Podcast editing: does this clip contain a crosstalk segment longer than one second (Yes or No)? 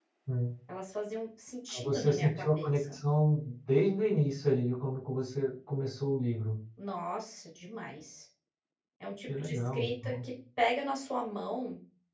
Yes